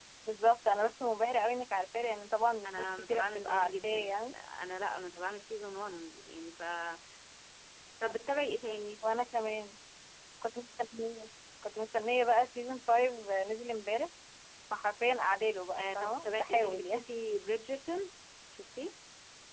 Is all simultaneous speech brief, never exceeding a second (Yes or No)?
No